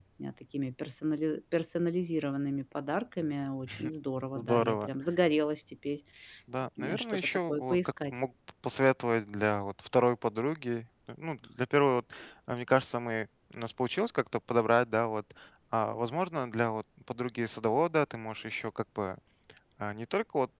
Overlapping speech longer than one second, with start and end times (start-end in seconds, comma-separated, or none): 6.8-8.2